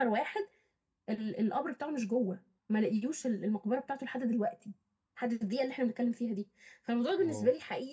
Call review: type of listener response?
listening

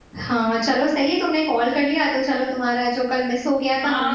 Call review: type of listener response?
taking over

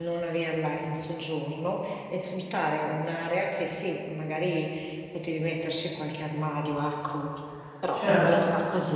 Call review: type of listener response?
listening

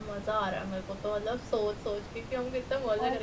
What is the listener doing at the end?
listening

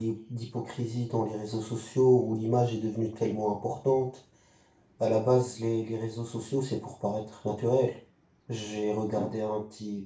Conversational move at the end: listening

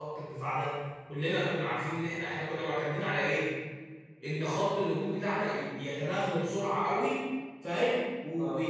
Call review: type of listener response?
listening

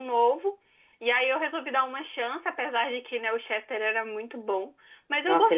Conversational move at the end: taking over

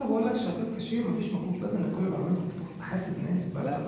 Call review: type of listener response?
listening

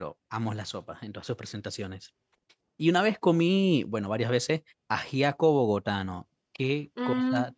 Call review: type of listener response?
listening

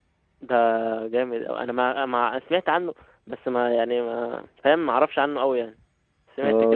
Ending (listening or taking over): taking over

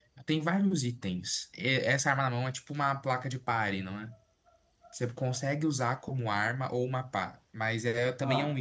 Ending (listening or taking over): listening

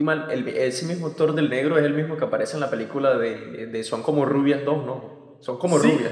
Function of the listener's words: taking over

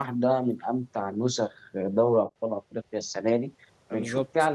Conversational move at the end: listening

